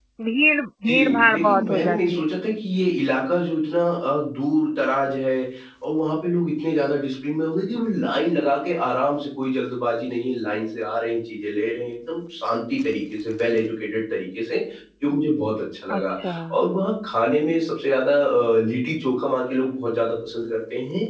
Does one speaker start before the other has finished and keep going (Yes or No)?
Yes